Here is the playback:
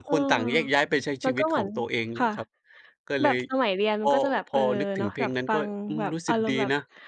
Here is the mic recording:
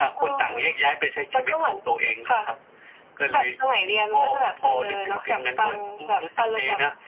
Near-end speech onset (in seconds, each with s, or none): none